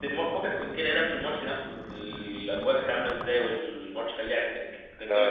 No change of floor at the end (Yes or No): No